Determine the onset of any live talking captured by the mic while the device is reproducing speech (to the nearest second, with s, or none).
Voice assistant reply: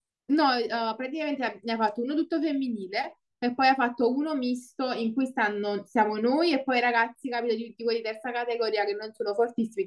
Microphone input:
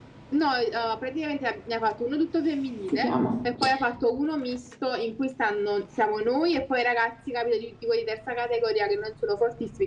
3 s